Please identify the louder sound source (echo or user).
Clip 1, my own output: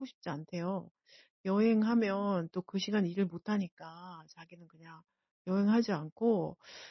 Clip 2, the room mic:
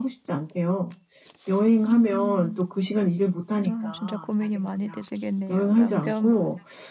echo